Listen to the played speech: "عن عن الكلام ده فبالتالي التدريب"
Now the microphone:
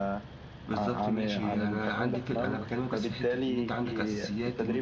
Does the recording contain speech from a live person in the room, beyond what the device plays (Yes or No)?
Yes